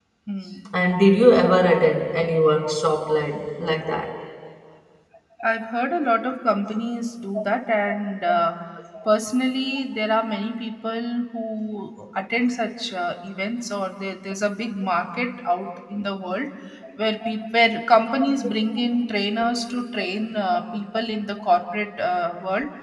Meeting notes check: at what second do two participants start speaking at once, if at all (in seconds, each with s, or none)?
none